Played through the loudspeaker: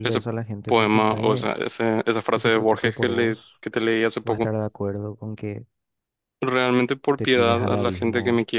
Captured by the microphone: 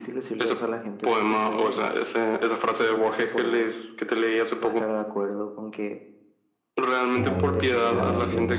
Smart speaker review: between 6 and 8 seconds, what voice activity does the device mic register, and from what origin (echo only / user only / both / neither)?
both